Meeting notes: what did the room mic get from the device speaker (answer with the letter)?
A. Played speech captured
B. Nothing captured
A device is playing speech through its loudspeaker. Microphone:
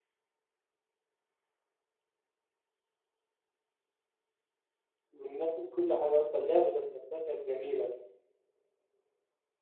B